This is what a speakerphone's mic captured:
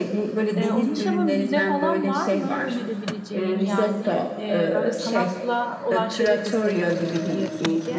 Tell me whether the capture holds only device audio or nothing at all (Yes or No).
No